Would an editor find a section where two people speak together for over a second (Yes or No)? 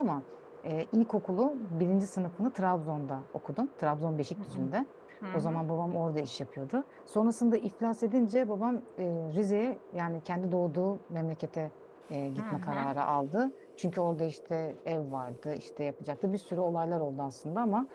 No